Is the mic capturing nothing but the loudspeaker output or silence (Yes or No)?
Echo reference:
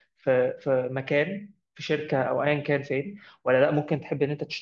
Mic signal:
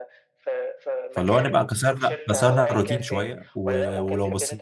No